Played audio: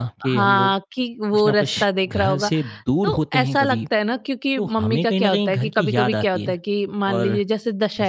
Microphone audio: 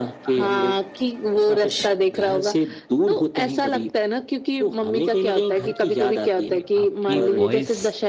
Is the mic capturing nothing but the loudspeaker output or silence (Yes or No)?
No